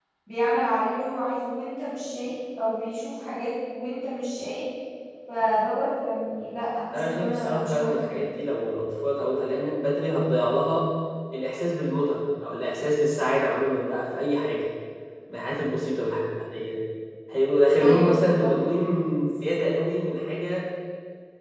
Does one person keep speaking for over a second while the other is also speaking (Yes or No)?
Yes